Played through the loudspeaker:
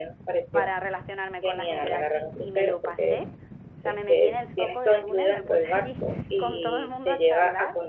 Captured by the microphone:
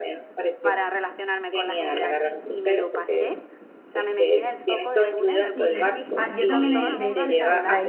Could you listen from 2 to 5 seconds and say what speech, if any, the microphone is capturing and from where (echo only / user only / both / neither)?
echo only